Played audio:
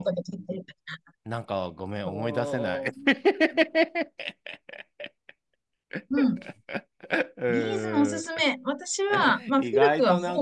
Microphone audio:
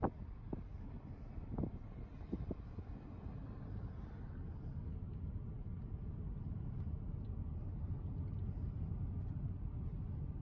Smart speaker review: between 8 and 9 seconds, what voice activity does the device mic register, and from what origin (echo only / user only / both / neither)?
neither